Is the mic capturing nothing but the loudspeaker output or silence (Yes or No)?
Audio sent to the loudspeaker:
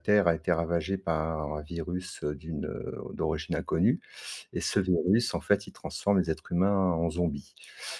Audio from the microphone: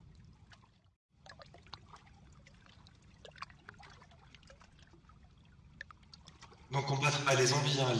No